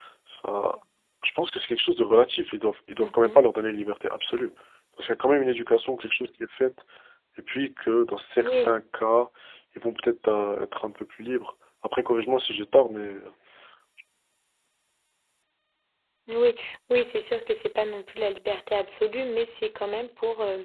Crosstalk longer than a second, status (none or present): none